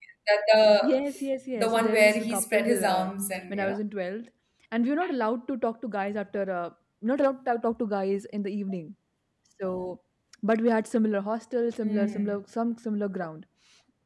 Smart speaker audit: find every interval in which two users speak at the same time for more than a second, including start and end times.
1.6-3.1

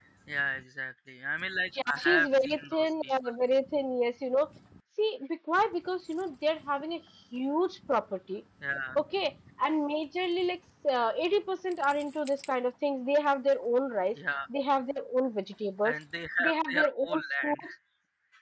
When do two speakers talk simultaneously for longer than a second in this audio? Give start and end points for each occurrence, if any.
1.9-3.3, 16.4-17.6

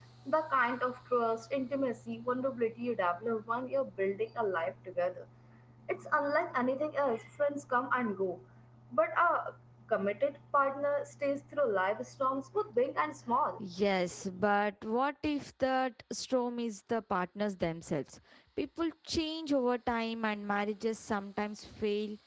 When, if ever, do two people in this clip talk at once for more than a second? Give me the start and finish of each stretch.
none

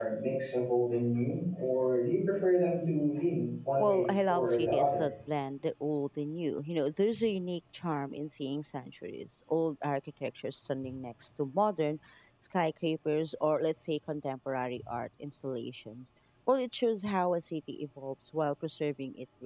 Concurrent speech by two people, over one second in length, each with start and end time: 3.8-5.0

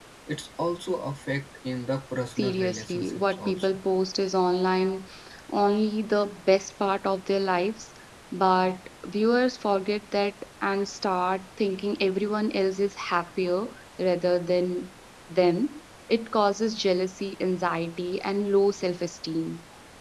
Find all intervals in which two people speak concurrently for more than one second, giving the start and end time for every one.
2.4-3.7

